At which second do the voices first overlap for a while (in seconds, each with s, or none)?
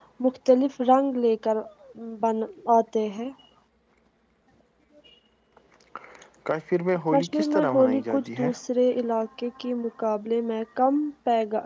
7.1 s